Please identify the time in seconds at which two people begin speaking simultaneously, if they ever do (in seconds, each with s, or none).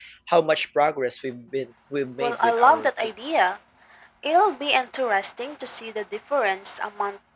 2.2 s